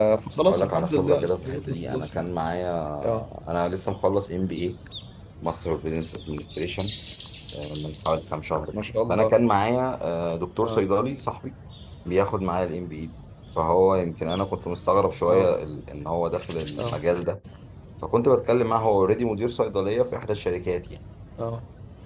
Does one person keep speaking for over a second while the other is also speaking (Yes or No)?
Yes